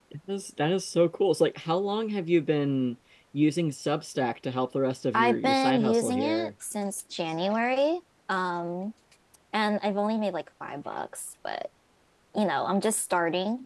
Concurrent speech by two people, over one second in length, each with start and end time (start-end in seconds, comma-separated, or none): 5.1-6.5